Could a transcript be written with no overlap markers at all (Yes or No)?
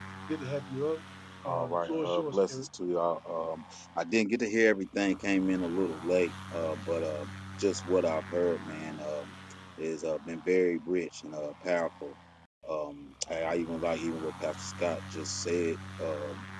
No